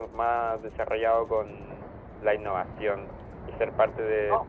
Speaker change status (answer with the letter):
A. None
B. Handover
A